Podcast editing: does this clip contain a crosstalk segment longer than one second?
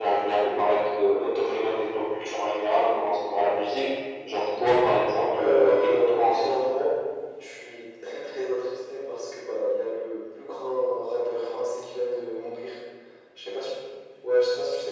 Yes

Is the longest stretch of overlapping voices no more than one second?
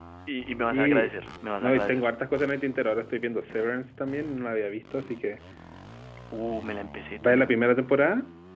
Yes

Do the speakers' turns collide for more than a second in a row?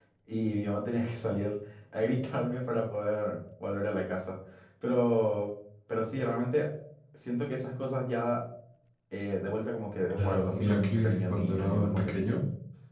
Yes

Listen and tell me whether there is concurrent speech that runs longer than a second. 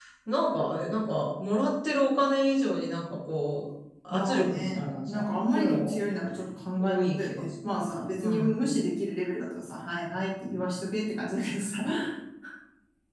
Yes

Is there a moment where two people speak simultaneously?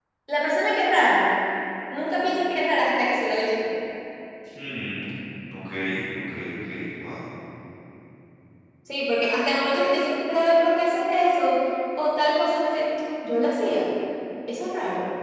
No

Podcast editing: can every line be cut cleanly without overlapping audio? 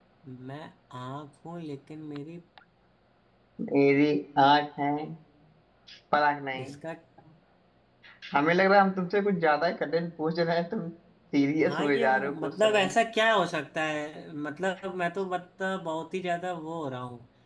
No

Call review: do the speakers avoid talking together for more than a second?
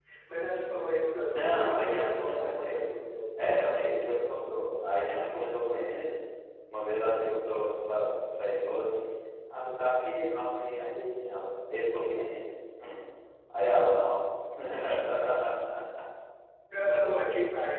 No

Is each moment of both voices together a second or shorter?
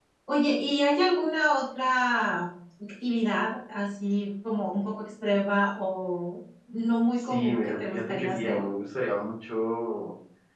No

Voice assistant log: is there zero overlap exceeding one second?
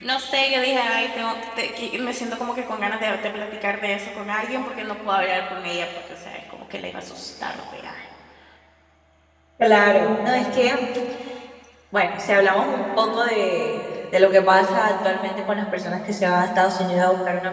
Yes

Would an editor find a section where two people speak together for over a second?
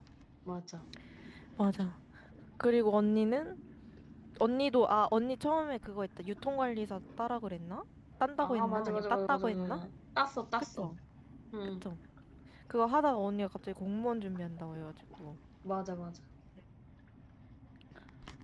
Yes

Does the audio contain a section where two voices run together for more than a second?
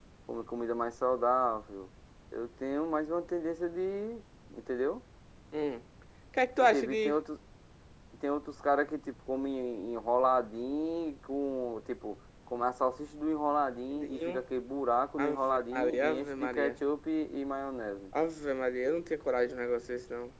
Yes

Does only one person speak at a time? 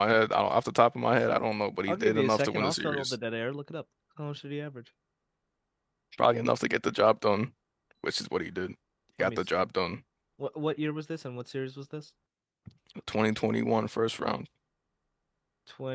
No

